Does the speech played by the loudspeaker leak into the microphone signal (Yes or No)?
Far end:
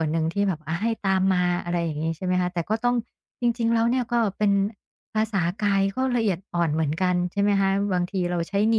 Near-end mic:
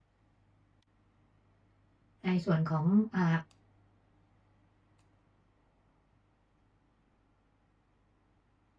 No